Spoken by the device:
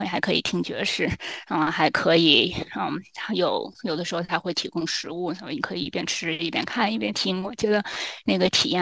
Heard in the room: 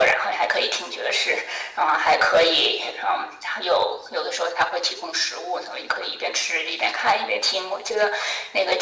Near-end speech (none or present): none